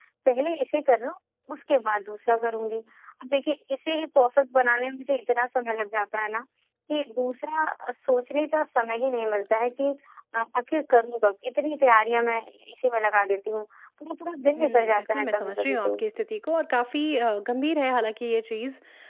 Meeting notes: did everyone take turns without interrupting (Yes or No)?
No